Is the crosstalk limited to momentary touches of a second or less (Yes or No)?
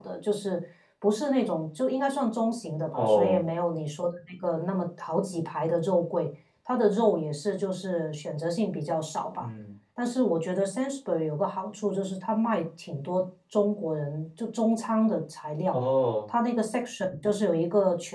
Yes